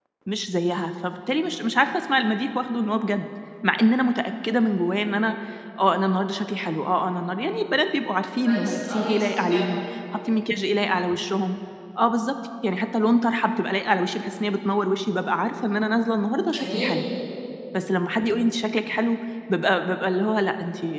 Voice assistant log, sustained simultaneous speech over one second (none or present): present